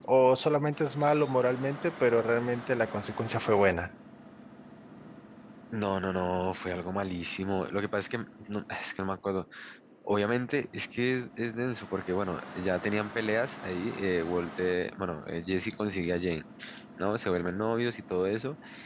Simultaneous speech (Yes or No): No